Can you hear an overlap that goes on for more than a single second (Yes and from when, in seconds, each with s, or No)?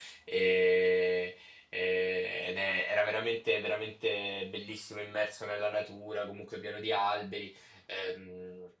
No